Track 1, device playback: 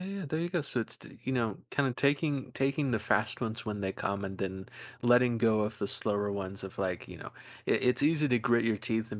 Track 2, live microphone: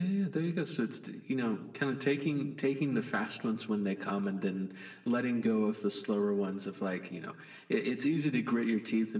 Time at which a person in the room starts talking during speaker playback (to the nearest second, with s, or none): none